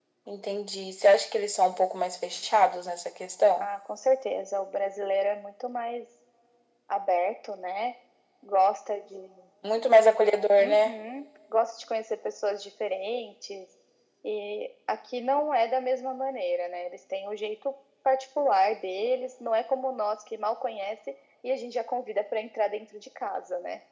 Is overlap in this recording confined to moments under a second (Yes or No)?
Yes